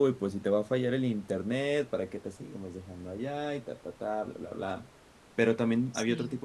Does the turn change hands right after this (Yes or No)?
No